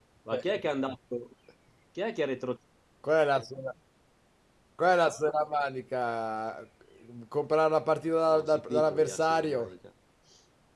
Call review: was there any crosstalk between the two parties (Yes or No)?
Yes